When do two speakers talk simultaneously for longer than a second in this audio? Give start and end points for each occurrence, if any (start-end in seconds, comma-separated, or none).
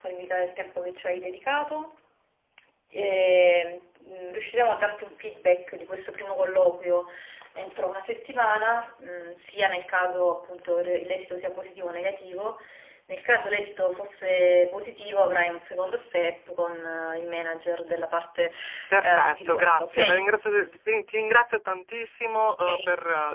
19.0-20.2